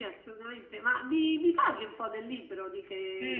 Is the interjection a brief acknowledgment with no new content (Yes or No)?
No